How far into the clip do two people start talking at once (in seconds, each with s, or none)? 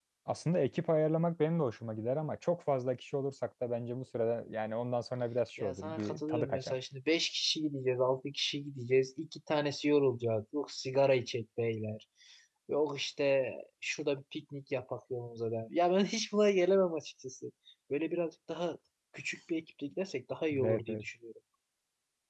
5.6 s